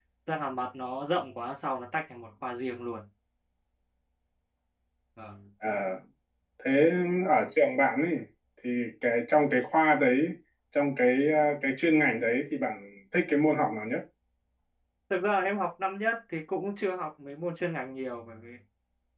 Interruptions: none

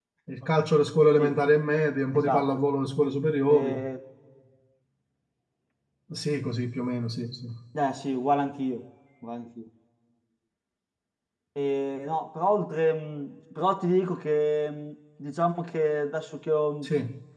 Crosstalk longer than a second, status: none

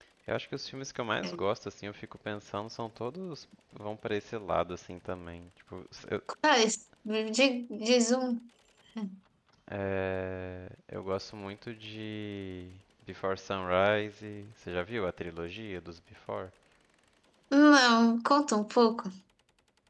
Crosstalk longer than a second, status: none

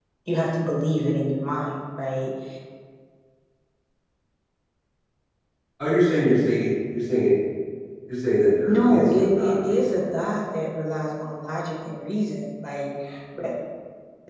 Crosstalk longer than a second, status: present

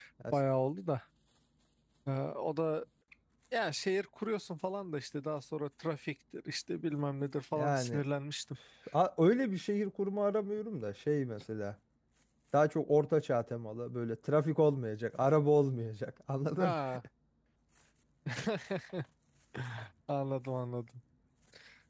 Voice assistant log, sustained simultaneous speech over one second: none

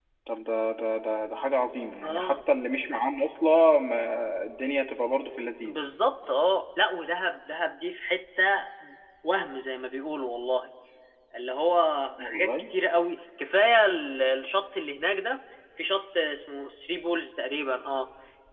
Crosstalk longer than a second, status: none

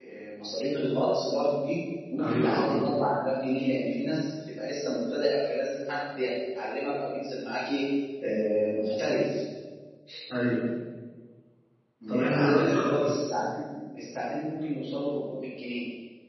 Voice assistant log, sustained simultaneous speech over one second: present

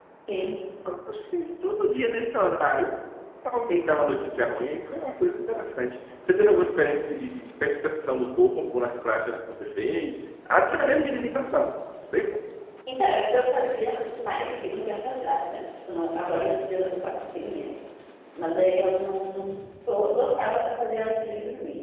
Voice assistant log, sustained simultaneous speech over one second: none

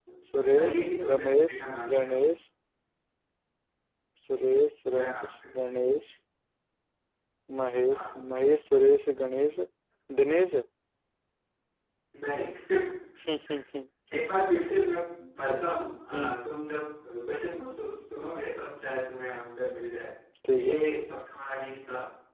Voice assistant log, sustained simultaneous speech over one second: present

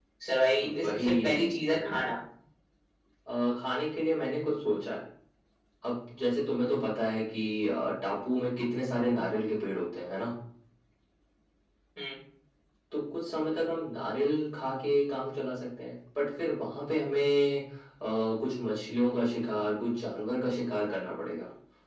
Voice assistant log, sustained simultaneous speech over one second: present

